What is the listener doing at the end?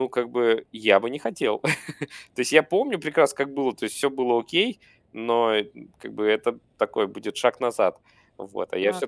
taking over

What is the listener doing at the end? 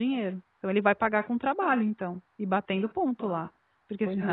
taking over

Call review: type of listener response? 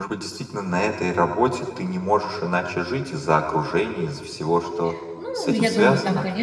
taking over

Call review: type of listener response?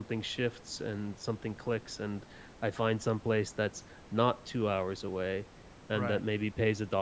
listening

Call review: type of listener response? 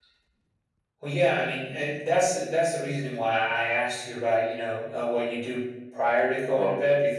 listening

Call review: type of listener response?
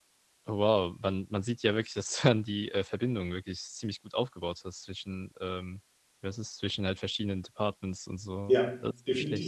taking over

